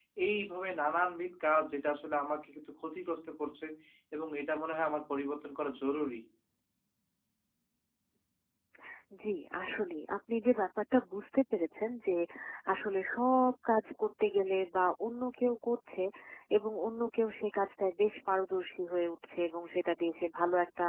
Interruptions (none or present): none